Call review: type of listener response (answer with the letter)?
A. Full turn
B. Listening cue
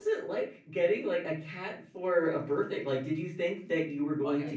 A